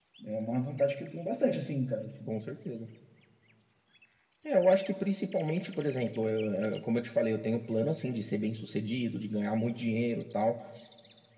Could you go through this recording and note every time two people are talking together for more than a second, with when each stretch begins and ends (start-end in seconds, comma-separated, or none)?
none